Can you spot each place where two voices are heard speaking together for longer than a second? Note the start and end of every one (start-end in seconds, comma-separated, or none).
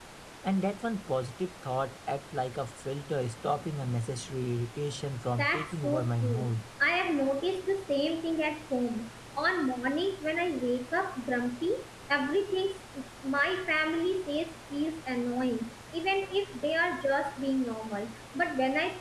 5.3-6.5